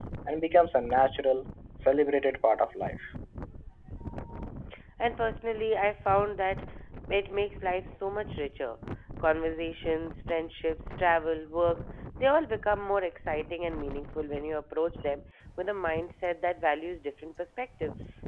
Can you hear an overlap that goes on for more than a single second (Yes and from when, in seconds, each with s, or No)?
No